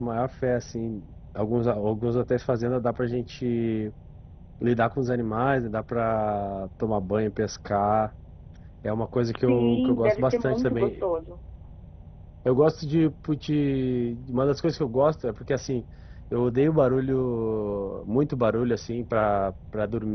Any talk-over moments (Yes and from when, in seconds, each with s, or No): Yes, from 9.3 s